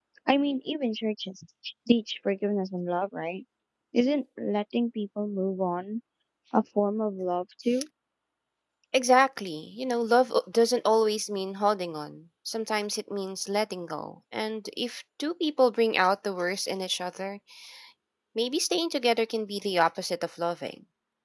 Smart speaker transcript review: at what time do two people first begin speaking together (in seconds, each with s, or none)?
none